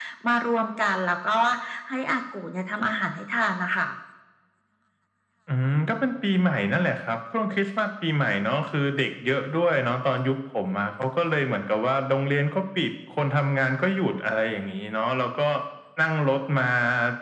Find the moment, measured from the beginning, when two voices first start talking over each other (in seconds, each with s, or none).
none